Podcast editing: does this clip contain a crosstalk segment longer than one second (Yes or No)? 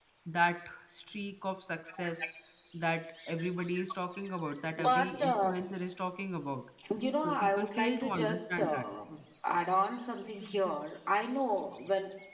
Yes